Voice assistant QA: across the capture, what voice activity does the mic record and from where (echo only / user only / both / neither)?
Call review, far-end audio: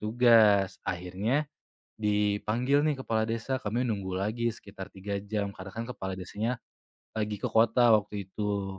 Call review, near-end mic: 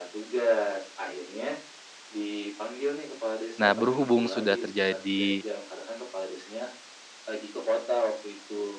both